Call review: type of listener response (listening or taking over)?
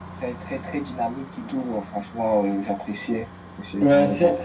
taking over